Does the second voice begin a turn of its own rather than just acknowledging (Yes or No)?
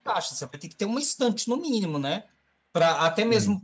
No